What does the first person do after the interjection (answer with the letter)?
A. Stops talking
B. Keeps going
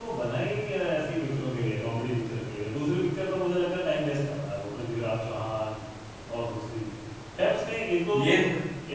B